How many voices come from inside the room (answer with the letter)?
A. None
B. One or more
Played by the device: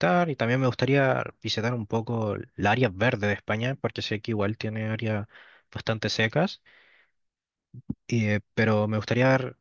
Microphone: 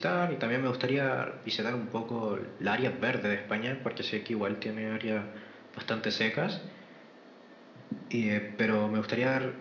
A